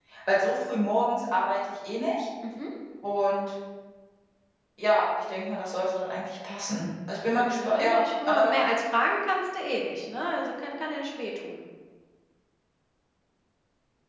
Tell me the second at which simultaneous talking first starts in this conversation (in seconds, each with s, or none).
7.3 s